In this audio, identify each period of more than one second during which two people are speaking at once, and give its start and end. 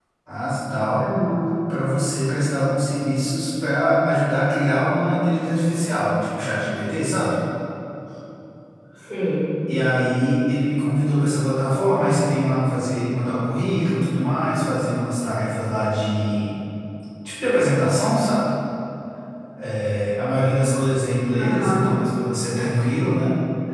none

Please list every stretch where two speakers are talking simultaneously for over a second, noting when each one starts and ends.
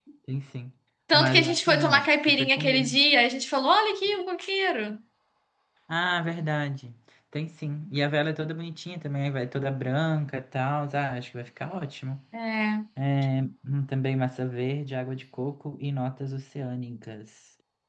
1.1-2.9

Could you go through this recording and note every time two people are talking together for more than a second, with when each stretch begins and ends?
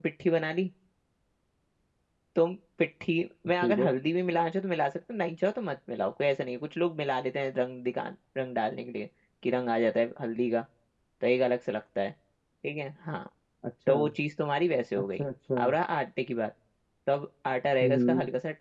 none

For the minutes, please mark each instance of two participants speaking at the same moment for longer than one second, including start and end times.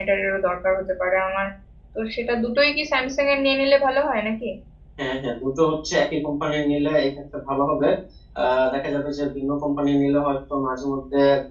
none

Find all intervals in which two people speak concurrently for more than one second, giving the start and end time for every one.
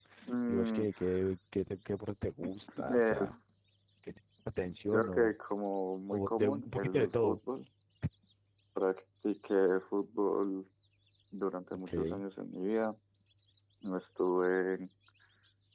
6.1-7.4

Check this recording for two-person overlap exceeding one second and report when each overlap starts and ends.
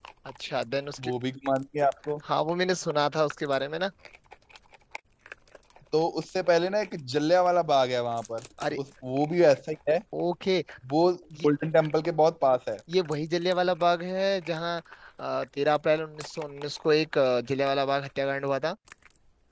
none

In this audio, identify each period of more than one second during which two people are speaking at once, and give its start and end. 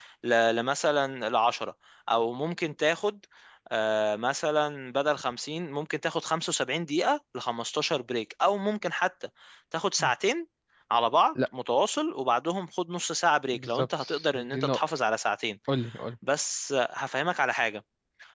13.5-14.9

